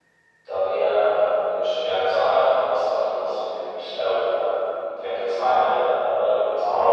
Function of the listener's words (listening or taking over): taking over